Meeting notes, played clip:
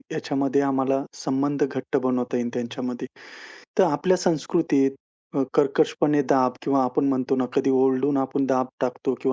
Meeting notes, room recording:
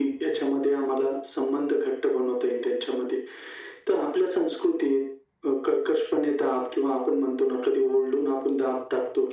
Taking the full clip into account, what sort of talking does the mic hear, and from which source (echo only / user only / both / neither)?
echo only